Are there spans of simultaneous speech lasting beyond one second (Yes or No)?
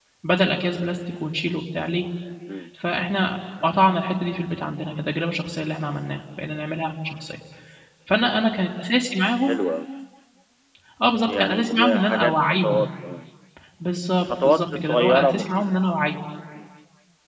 Yes